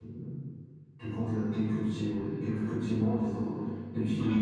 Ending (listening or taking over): listening